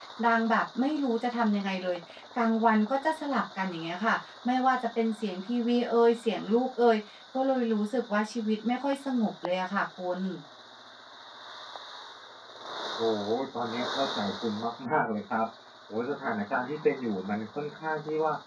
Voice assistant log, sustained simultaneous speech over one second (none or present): none